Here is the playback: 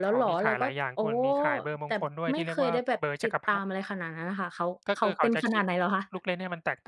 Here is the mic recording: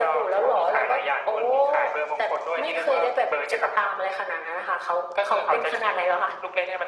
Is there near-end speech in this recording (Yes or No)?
No